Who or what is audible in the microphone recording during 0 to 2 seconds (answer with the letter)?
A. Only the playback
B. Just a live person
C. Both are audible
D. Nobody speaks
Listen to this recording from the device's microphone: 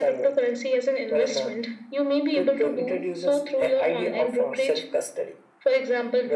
A